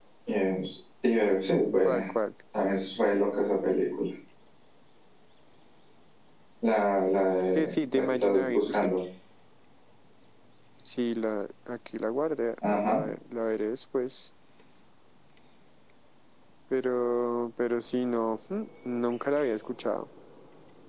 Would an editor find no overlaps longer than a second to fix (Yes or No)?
No